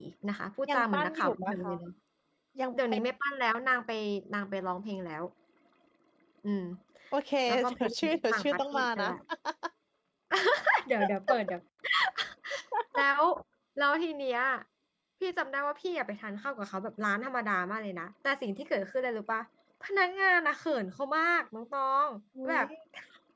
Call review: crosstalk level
present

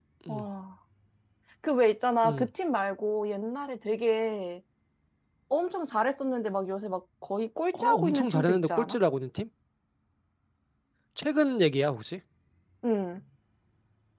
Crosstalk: present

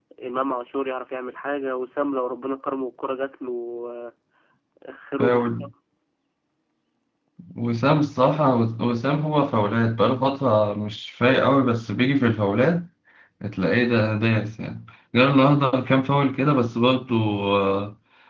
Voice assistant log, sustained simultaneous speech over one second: none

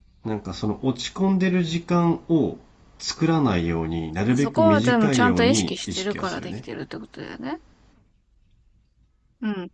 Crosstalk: present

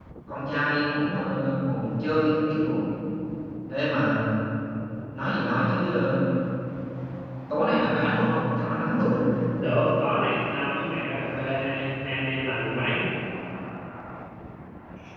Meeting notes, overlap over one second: none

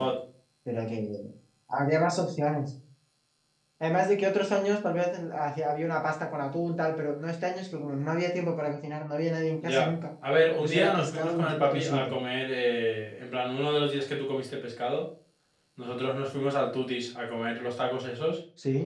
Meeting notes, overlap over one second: present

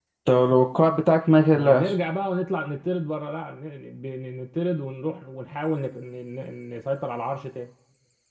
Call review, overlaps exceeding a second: none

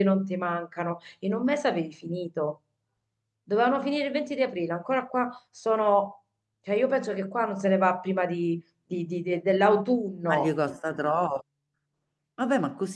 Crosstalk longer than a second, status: none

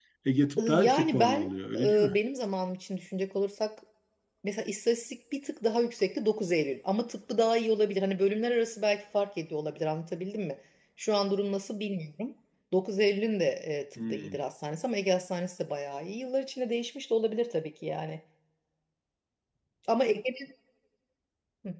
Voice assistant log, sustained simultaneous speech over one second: present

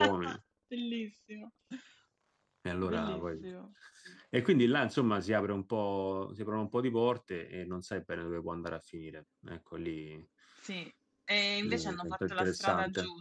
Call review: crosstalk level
present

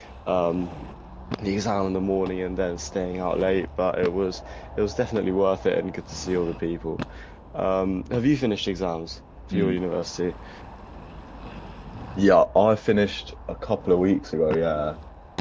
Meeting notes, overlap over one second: none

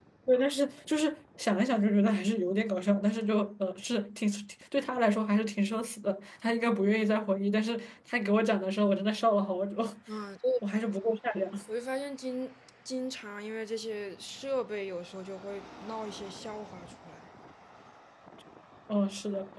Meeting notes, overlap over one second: none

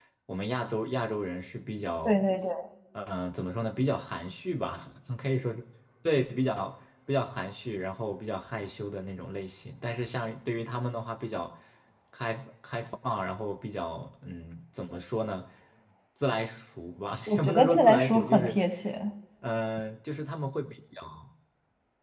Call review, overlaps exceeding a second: present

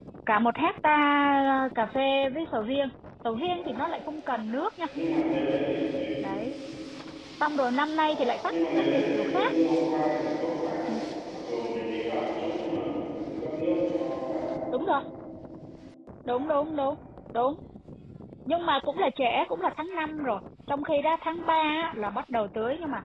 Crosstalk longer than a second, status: present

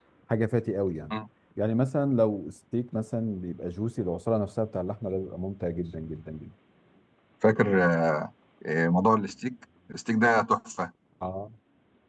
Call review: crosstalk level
none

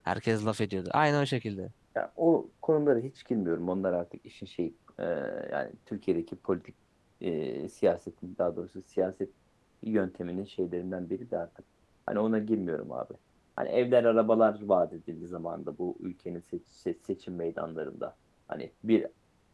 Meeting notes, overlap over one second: none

